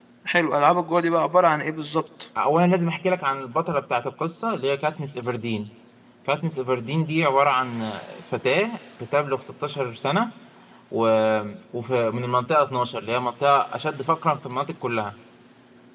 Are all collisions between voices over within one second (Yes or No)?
Yes